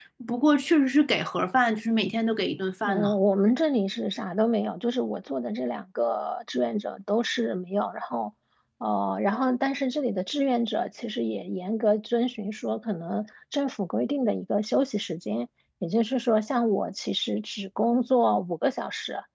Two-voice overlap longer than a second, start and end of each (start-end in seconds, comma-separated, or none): none